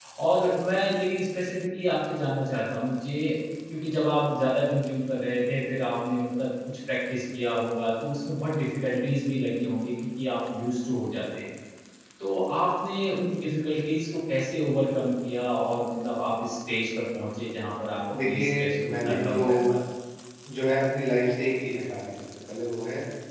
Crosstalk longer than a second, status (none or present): present